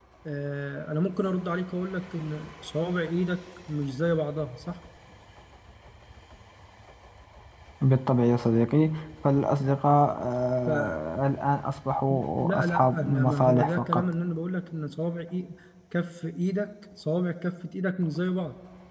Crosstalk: present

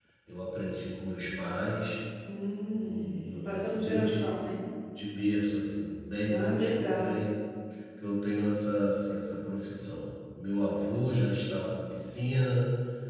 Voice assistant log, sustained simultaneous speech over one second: present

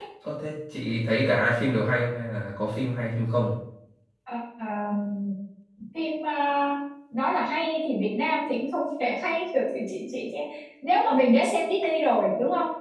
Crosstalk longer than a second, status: none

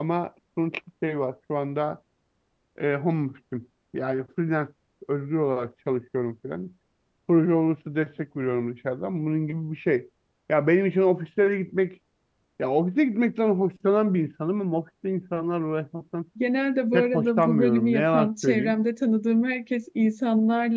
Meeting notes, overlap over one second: present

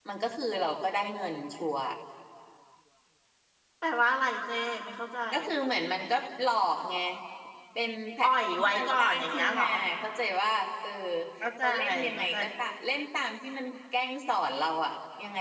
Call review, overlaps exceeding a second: present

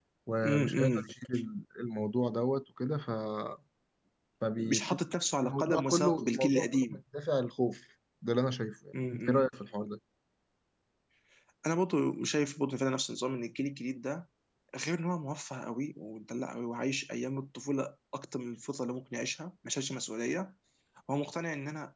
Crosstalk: present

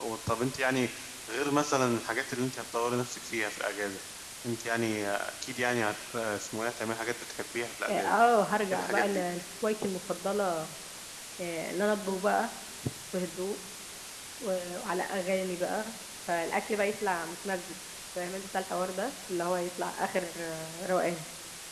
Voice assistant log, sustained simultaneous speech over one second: none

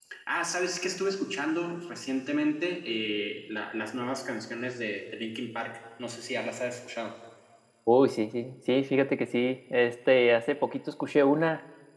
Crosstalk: none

